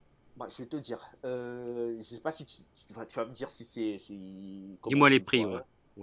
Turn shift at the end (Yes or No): Yes